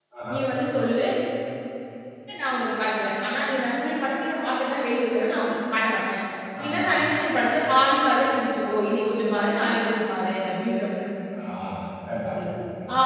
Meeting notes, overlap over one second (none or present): none